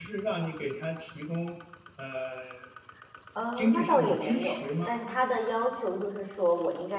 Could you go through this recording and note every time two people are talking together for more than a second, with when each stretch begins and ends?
3.6-5.0

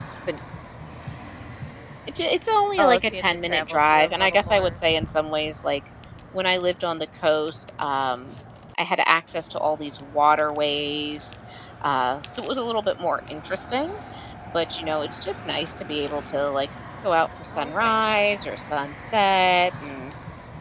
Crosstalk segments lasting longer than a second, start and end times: 2.8-4.7

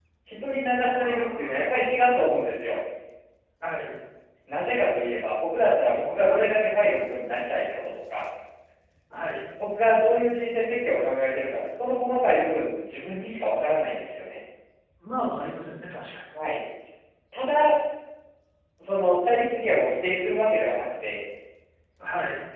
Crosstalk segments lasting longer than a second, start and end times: 0.8-2.0

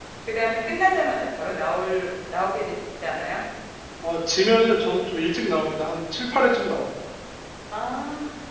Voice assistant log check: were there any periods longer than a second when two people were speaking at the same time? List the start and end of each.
none

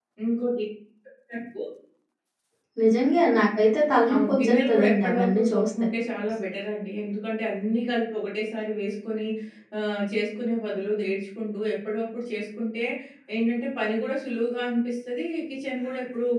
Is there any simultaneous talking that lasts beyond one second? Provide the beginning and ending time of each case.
4.1-5.7

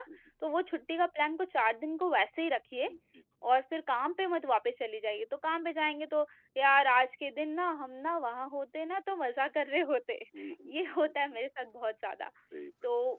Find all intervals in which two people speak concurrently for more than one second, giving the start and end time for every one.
none

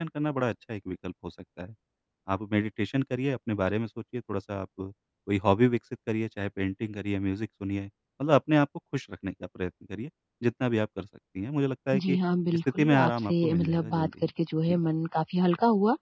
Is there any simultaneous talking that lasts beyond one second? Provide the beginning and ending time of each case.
12.8-14.3

